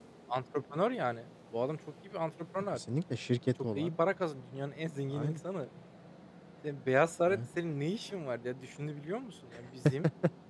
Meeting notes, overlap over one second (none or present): none